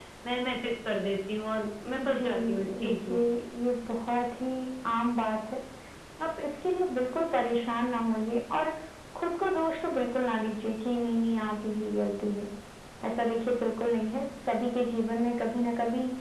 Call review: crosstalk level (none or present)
present